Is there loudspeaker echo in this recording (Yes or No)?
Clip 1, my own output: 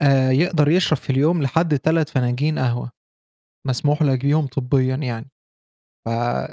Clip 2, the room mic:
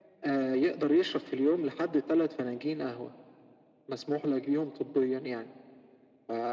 Yes